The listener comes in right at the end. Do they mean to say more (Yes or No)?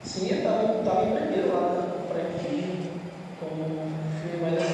No